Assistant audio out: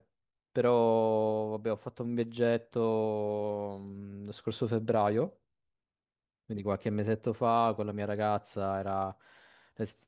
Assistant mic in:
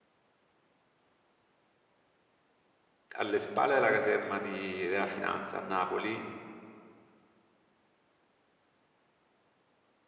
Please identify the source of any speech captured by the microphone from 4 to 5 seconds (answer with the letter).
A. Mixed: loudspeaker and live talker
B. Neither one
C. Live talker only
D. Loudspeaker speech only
C